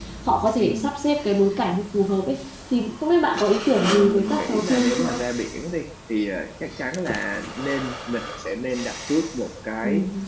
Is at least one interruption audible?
Yes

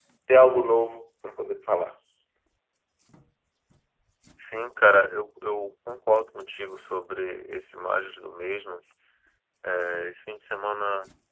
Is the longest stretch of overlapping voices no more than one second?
Yes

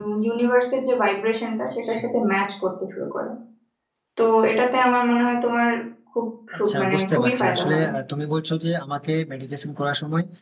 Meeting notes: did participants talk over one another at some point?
Yes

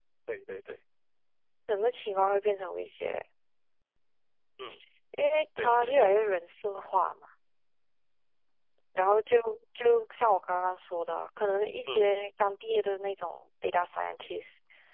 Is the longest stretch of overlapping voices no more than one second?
Yes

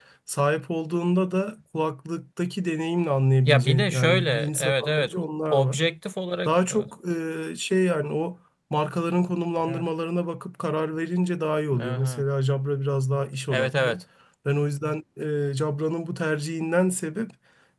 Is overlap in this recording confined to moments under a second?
No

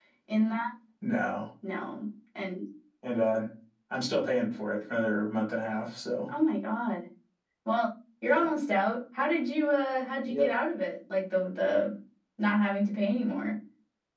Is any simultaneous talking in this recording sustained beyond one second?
No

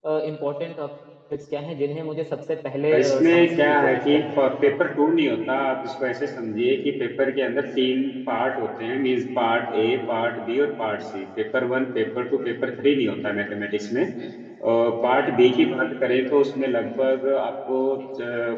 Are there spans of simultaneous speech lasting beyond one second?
Yes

